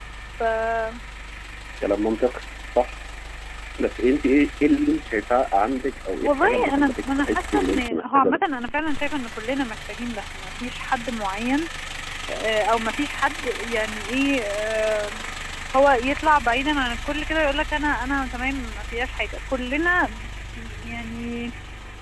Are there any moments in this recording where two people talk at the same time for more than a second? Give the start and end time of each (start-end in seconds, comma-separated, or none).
6.2-8.4